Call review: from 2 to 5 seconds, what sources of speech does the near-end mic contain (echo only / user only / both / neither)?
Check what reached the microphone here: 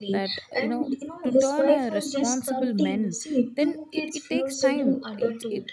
both